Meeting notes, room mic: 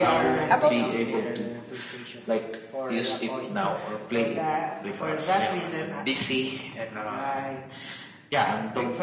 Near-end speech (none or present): present